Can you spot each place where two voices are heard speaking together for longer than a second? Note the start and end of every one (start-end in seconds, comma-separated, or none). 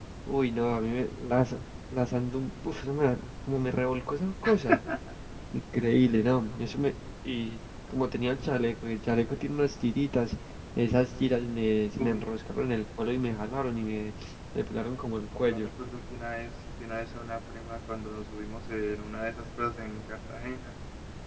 none